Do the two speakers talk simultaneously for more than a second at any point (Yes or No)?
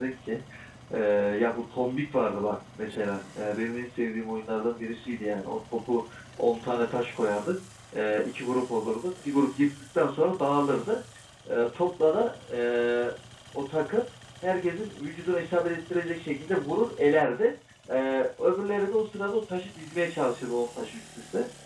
No